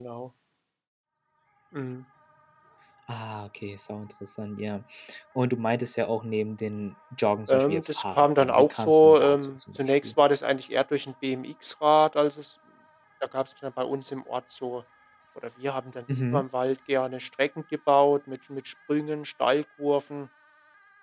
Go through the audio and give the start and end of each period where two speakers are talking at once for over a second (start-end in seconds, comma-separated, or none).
7.5-10.1